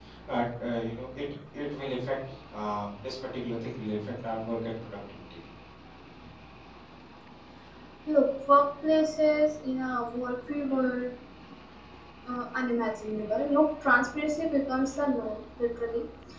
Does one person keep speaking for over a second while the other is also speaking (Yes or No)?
No